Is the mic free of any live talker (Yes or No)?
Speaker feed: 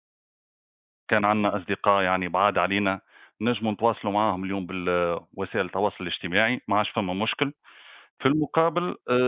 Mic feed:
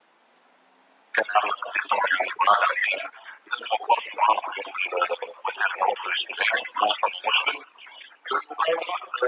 Yes